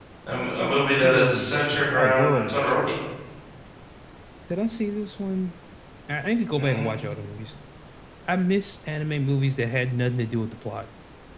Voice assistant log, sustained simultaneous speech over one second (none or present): present